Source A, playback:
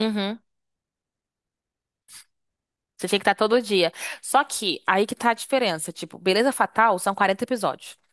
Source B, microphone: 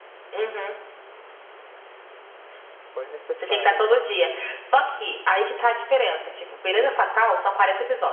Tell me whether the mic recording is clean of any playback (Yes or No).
No